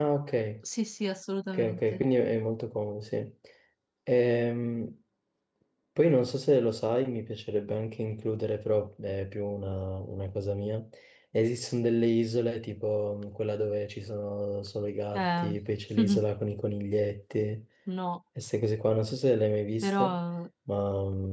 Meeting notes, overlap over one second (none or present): none